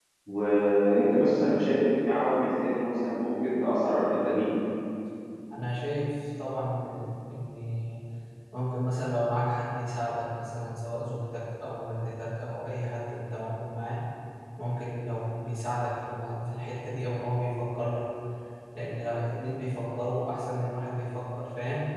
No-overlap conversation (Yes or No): Yes